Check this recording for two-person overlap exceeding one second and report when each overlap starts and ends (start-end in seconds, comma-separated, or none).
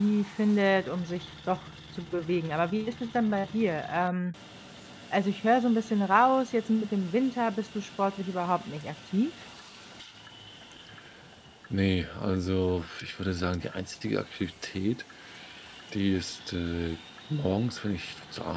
none